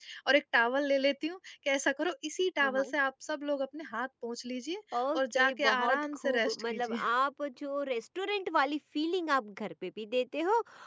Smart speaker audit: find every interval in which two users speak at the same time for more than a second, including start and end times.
5.0-7.0

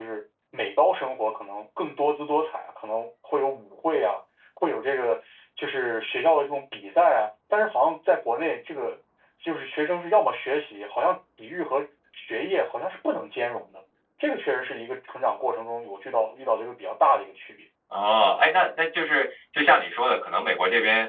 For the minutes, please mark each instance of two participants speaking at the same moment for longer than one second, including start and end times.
none

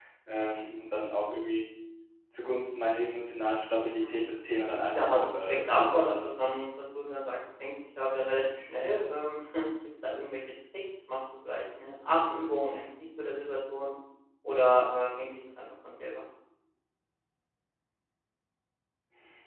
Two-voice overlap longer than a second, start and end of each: 5.0-6.3

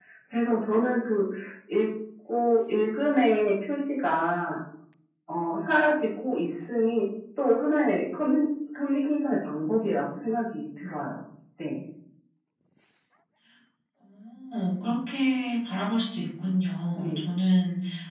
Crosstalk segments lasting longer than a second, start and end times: none

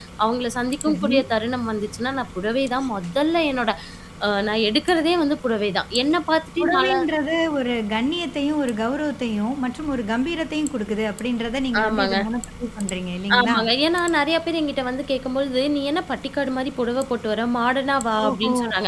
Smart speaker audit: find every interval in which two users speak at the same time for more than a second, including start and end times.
none

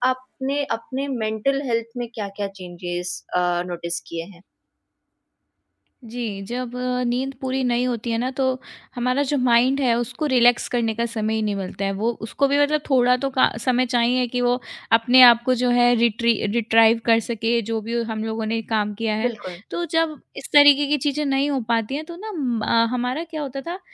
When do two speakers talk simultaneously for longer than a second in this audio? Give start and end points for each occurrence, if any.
none

